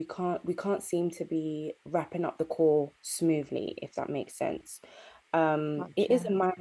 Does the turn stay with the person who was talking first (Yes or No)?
Yes